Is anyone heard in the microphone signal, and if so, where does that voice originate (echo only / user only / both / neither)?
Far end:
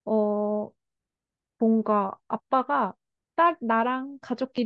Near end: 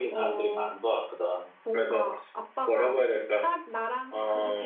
both